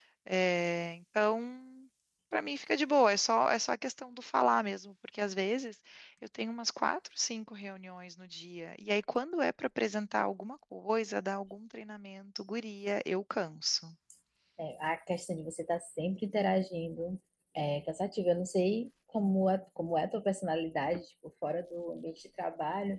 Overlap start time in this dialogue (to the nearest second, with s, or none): none